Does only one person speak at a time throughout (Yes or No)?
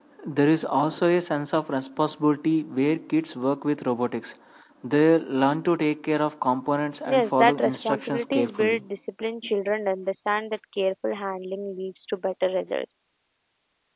No